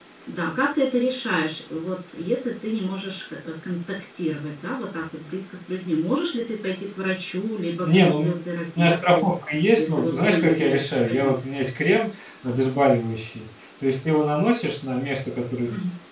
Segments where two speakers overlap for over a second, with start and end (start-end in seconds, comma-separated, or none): 9.8-11.3